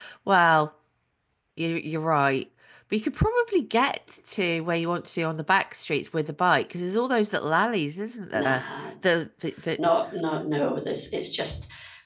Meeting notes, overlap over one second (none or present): none